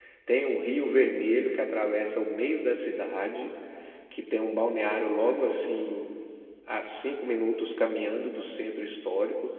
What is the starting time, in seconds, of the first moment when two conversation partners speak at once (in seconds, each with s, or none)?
none